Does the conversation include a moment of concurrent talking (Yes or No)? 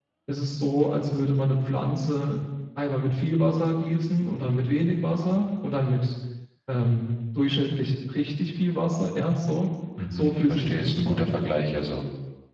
Yes